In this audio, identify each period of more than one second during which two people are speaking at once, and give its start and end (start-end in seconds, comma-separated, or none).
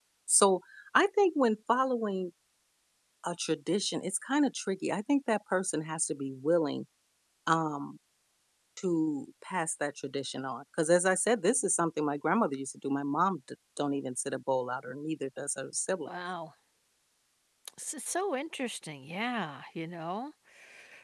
none